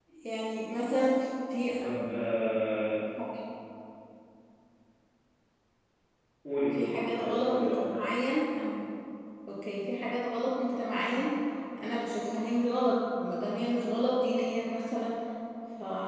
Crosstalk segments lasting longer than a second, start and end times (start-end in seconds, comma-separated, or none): 6.7-8.0